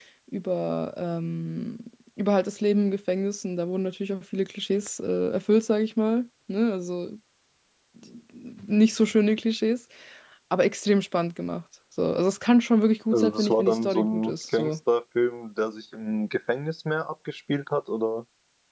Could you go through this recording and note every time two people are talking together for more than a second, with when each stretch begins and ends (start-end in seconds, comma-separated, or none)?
13.1-14.8